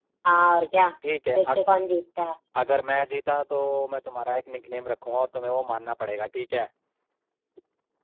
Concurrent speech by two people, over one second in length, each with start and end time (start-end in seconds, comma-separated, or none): none